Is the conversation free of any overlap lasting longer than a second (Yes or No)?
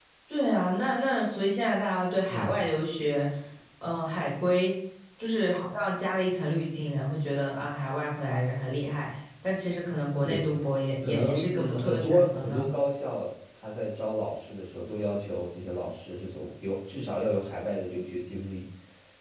No